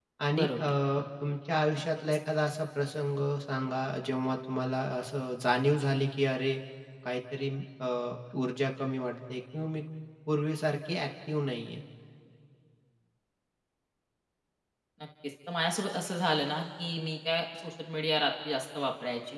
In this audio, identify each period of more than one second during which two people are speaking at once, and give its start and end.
none

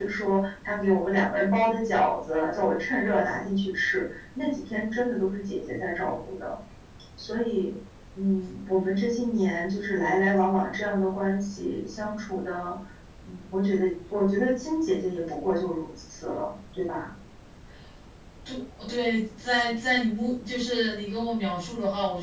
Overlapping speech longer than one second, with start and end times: none

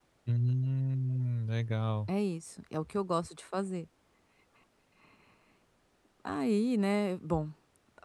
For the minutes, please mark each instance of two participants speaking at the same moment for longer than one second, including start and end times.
none

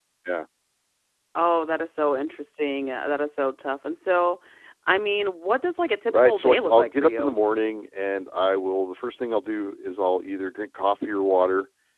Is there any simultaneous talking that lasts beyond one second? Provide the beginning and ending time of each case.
6.1-7.4

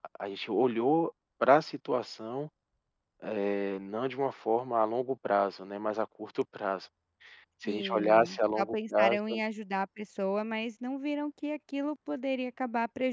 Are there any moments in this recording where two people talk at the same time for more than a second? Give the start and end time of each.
7.7-9.2

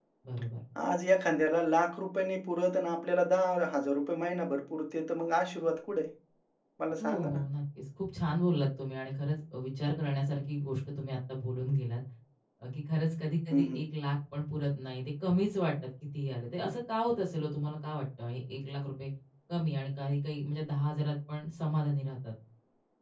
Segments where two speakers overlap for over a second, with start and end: none

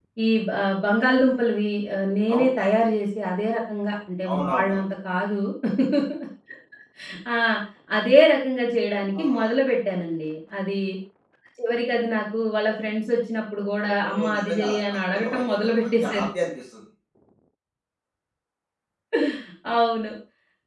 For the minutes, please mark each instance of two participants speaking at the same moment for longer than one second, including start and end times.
14.1-16.3

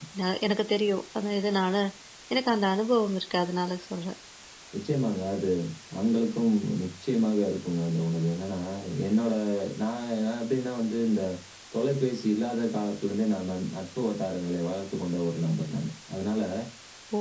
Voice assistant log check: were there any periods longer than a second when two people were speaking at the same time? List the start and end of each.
none

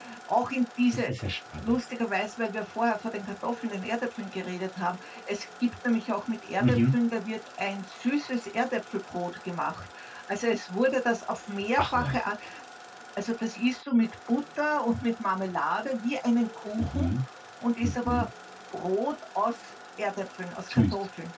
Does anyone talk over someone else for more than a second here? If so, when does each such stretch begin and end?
none

